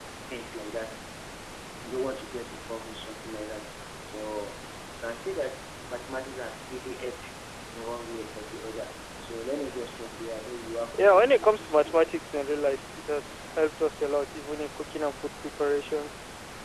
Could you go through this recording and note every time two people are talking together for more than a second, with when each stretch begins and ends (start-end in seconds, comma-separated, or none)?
10.9-12.1